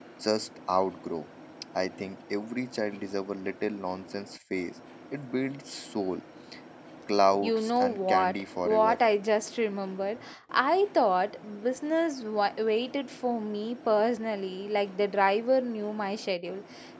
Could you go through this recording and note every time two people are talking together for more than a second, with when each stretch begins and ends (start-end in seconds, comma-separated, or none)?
7.4-9.0